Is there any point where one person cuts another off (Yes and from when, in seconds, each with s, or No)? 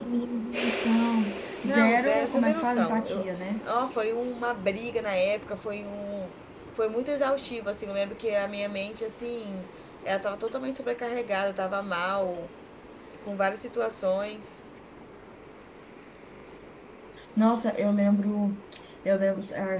Yes, from 1.6 s